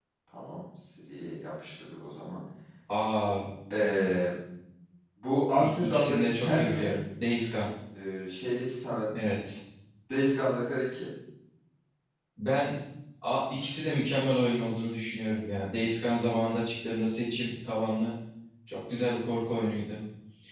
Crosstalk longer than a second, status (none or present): present